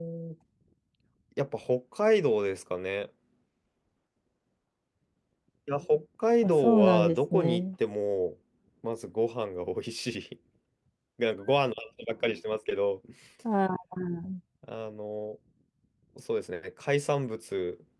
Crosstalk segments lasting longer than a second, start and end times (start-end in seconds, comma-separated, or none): 6.4-7.6